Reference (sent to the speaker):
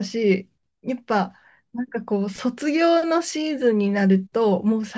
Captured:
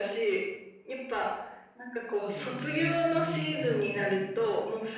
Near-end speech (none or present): present